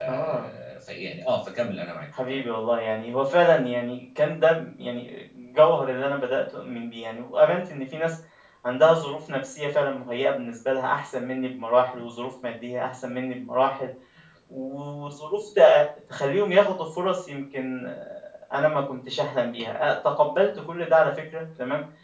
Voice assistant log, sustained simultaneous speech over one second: none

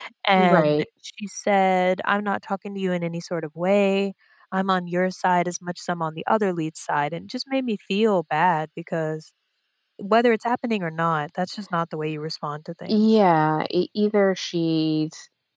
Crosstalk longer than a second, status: none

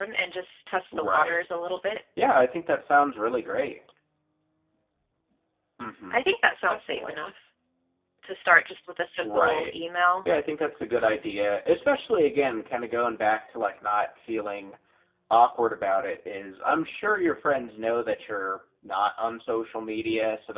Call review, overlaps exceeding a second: none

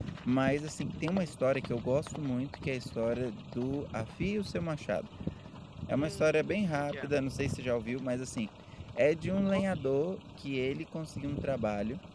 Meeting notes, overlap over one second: present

